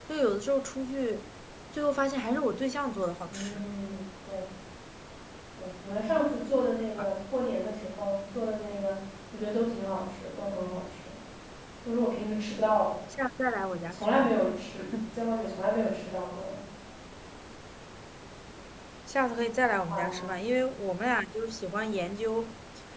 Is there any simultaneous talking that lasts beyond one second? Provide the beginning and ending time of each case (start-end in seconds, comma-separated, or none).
none